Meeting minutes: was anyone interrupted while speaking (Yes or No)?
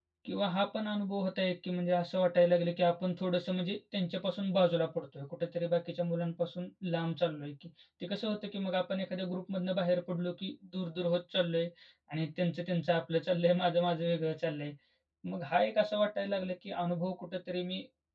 No